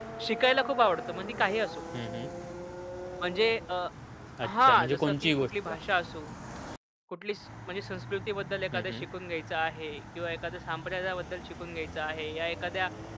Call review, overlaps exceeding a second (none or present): present